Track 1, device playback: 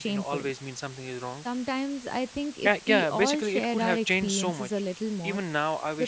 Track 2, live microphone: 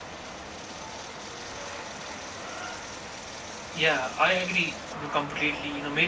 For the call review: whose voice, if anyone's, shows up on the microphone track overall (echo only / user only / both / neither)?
user only